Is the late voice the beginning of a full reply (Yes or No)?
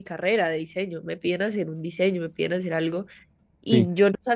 No